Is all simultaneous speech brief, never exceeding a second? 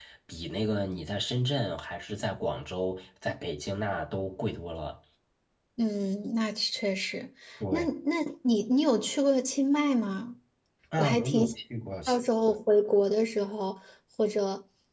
Yes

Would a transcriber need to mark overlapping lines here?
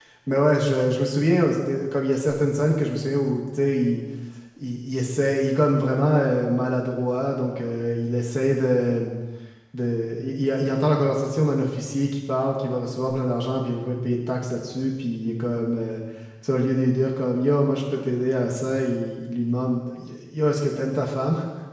No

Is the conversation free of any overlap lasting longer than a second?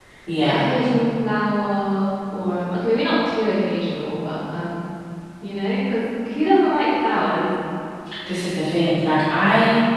Yes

